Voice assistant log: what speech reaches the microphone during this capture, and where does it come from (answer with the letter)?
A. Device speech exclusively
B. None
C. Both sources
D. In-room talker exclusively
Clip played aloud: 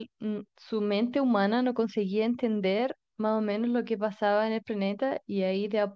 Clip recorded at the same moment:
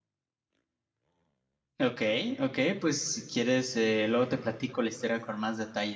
D